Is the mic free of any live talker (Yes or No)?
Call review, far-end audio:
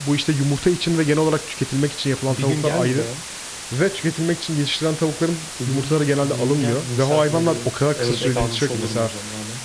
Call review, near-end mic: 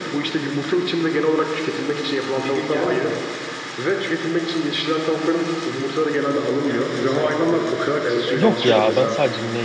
No